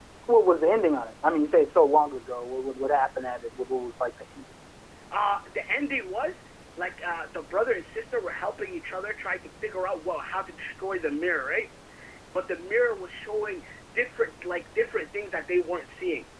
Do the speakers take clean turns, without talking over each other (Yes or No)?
Yes